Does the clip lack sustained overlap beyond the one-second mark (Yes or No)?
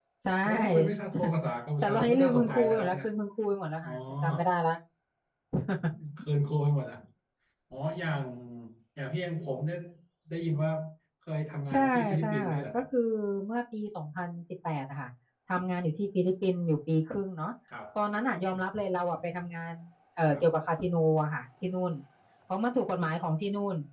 No